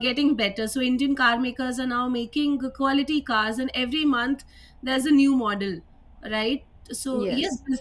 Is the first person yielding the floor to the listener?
No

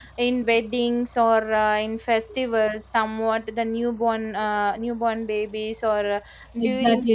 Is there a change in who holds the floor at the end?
Yes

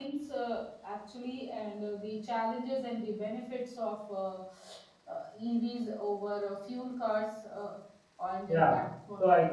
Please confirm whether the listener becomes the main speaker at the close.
Yes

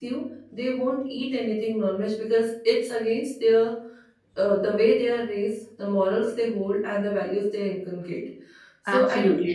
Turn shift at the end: Yes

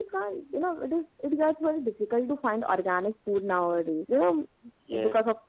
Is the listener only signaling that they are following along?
Yes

